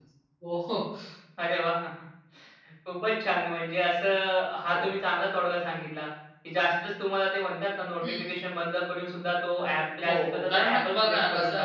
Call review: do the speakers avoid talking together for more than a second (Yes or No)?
No